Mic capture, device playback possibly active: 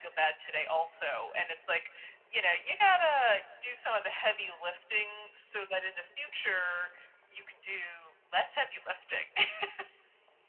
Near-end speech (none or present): none